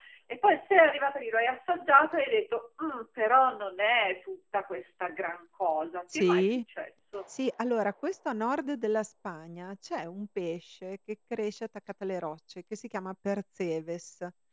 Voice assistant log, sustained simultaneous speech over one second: none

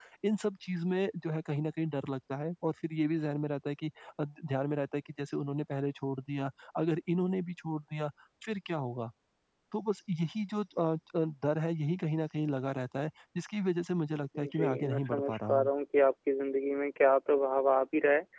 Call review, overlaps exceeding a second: present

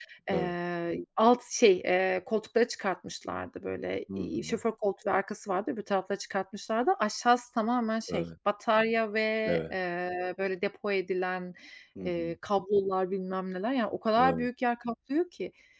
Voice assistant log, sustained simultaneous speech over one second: none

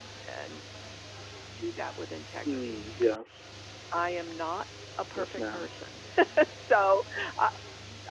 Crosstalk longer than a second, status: none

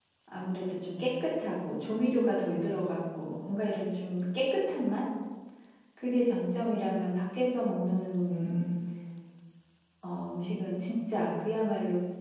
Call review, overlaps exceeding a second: none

